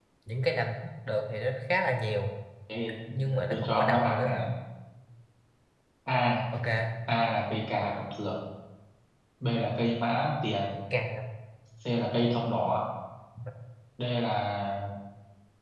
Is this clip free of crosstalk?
No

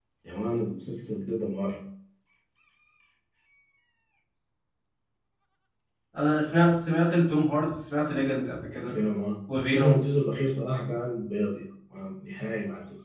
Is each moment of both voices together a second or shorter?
Yes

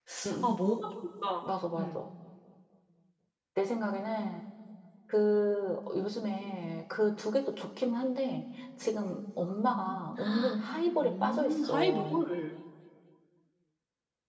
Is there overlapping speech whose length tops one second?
Yes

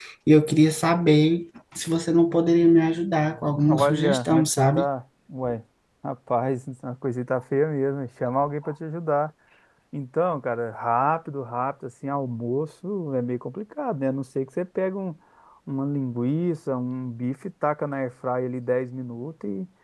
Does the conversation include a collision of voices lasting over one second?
Yes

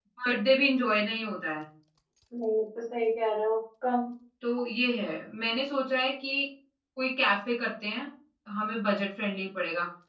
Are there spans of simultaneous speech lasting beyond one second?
No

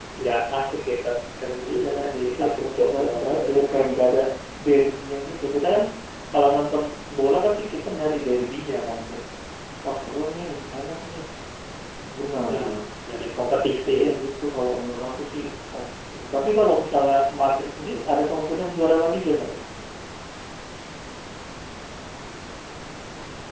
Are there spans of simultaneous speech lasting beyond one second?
Yes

